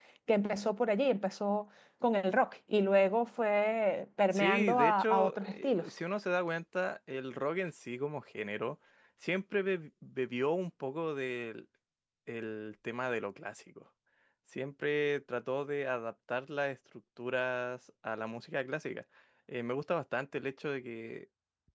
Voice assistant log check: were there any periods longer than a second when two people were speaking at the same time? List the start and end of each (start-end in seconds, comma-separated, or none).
4.3-5.9